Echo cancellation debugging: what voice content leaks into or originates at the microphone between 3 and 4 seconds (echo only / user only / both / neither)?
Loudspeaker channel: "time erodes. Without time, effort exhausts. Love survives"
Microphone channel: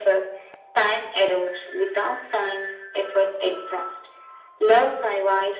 echo only